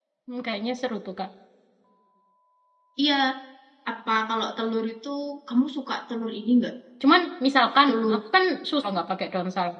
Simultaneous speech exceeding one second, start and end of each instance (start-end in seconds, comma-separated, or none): none